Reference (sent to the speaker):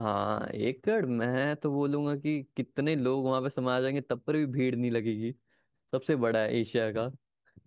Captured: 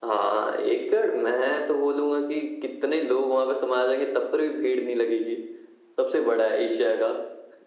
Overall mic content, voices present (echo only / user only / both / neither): echo only